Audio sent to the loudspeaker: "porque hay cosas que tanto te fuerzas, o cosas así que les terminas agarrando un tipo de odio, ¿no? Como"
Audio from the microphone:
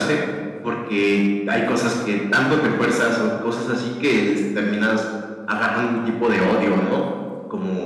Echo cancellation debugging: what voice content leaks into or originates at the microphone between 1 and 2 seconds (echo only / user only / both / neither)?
echo only